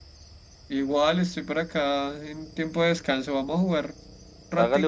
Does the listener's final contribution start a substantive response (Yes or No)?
Yes